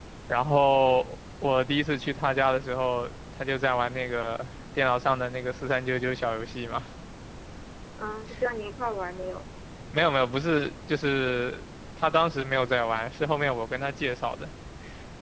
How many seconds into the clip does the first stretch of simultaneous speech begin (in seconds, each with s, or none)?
none